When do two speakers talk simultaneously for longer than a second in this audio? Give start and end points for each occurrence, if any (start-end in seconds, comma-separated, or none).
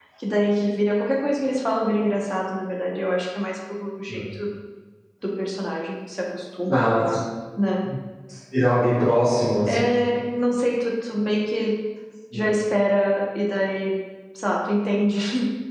none